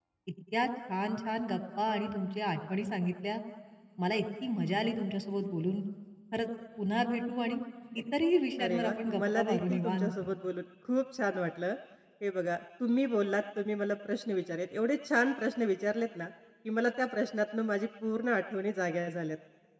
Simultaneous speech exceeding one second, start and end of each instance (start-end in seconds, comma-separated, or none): 8.6-10.2